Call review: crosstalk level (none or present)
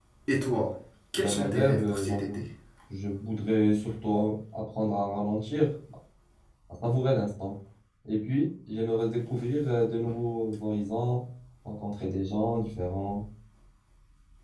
present